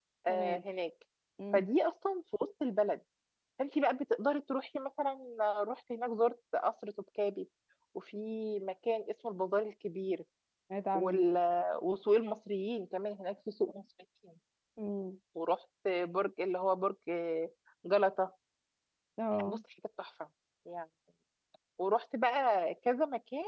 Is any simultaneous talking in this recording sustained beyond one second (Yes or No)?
No